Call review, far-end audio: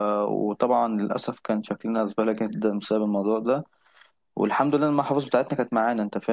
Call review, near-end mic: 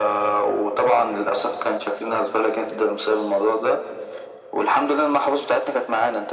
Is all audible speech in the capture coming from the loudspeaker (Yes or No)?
Yes